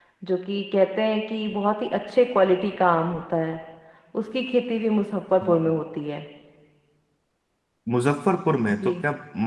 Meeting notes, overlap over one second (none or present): none